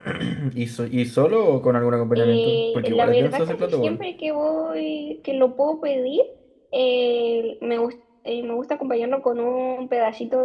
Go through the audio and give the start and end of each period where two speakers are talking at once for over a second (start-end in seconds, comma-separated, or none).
2.1-4.0